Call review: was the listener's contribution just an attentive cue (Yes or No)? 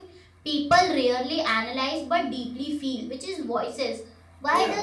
Yes